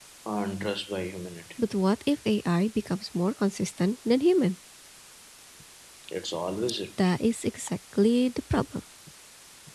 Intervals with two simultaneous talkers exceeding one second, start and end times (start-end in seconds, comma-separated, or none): none